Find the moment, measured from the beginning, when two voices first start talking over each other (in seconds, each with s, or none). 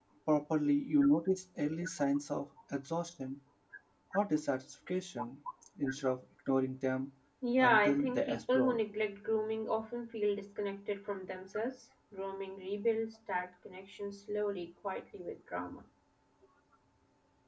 7.6 s